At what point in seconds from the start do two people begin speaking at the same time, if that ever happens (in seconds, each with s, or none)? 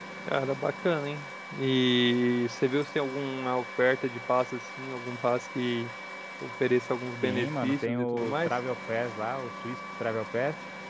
7.2 s